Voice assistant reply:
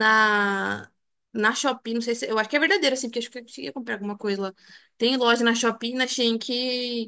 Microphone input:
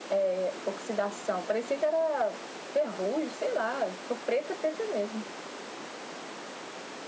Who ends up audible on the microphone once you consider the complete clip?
user only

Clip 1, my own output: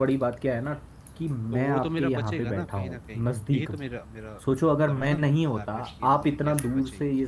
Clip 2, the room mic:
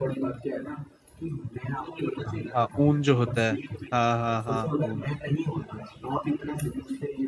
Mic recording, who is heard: both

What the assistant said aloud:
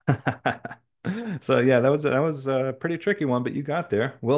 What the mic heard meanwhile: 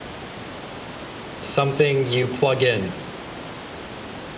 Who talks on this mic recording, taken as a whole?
user only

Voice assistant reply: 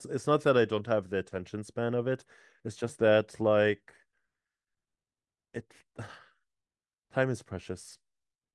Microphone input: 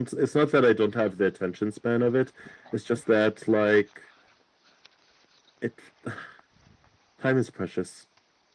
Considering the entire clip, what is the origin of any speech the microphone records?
echo only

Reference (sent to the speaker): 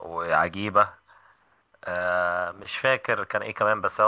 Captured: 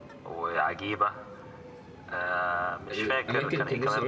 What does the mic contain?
both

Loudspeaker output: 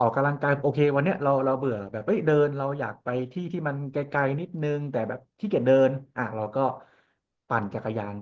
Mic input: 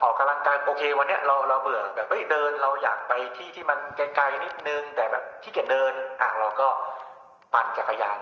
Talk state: echo only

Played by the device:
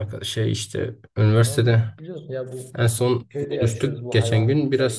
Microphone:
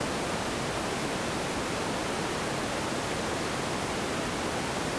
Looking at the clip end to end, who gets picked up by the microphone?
neither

